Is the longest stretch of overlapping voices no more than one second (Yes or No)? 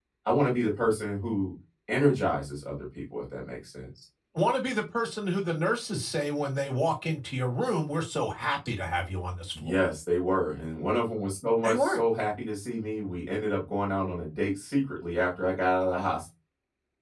Yes